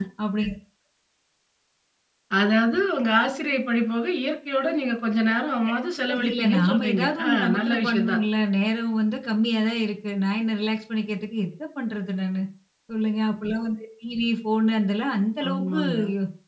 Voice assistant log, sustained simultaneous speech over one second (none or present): present